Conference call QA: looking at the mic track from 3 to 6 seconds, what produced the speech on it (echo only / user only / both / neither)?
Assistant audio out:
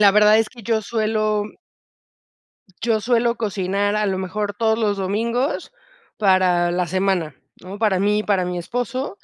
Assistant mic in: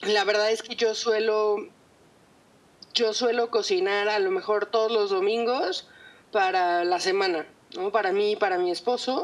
echo only